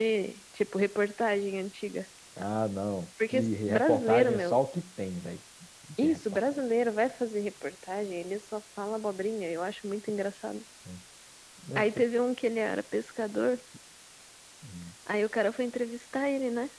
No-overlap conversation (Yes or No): No